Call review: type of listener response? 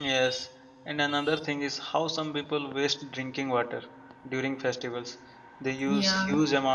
listening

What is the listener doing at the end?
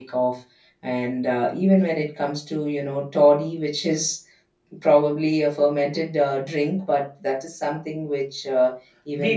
taking over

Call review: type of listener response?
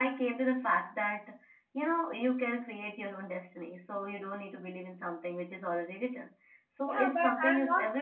taking over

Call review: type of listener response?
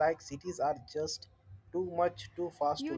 taking over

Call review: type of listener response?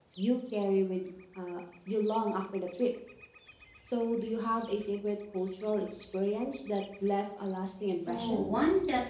taking over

